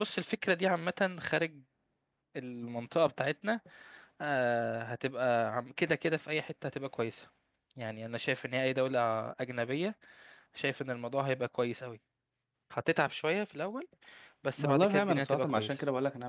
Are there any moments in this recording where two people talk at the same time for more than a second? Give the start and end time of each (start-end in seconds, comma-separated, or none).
14.6-15.8